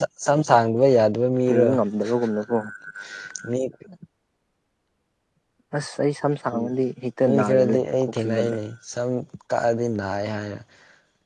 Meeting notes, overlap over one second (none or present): present